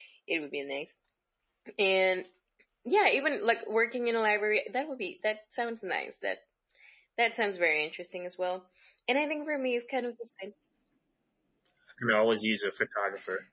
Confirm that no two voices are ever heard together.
Yes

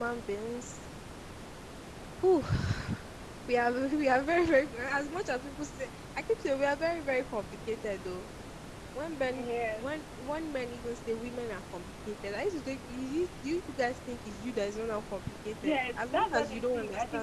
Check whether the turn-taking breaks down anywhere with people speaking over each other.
Yes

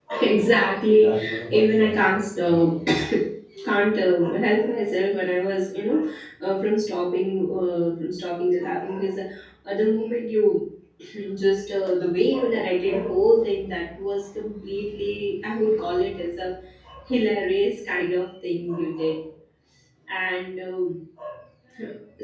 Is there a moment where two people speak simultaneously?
Yes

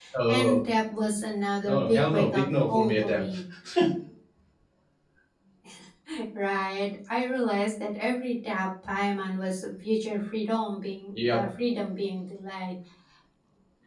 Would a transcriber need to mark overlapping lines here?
Yes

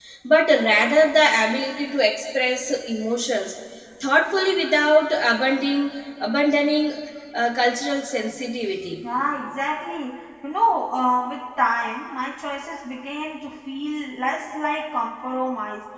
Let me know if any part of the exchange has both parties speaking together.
No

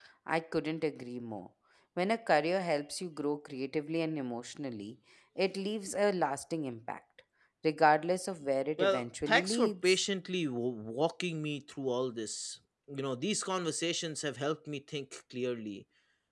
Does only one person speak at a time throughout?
No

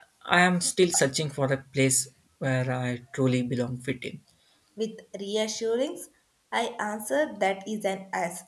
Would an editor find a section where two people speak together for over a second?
No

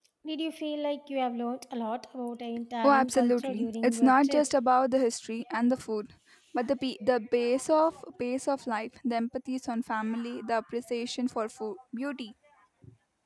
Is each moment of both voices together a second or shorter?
No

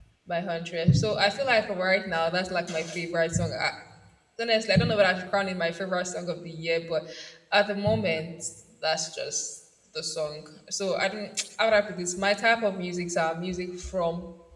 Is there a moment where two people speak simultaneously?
No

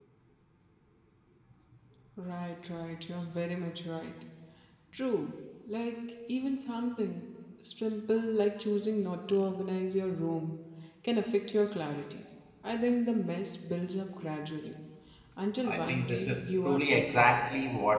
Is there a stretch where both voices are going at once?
Yes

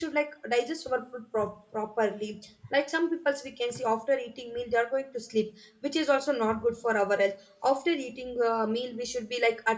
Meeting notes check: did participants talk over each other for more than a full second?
No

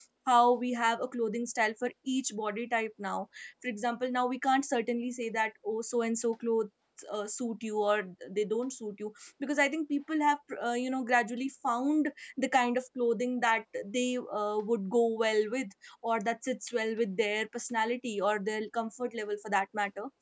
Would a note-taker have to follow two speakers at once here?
No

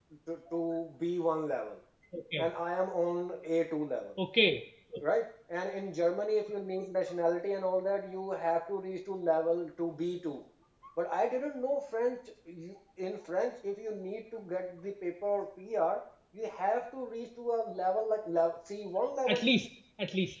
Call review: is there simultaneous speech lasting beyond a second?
No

